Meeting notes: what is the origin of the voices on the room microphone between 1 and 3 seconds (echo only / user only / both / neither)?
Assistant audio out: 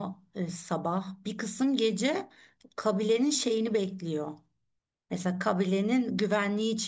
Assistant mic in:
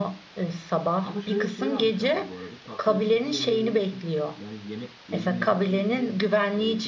both